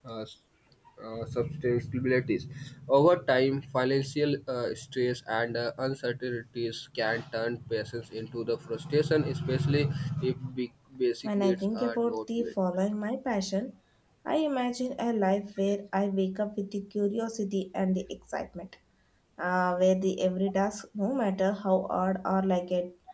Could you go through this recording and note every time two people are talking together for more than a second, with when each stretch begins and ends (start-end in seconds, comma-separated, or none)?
11.2-12.5